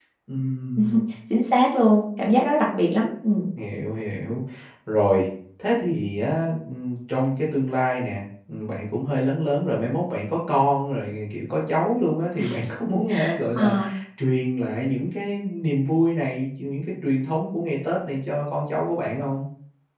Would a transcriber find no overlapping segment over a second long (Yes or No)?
Yes